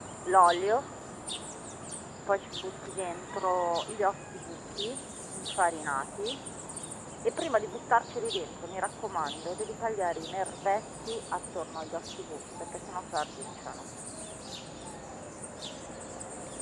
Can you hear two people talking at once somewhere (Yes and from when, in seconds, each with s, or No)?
No